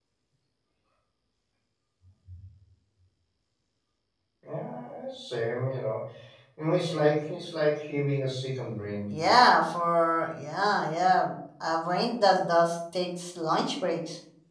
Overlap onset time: none

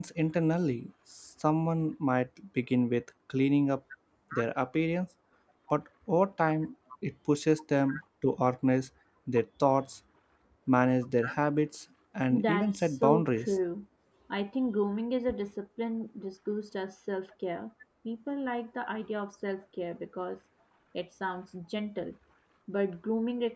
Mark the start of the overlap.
12 s

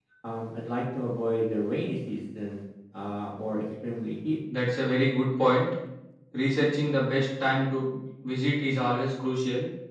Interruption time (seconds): none

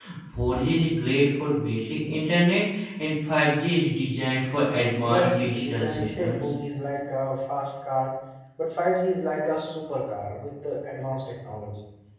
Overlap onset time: 5 s

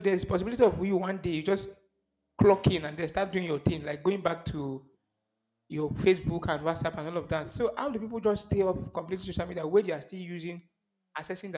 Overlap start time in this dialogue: none

